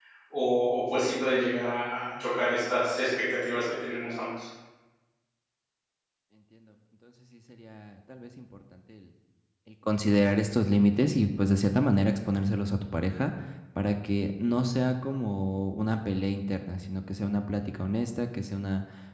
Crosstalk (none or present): none